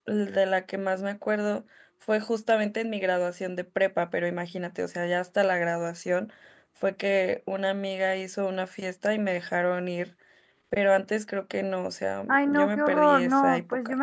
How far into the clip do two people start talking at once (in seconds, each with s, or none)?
12.3 s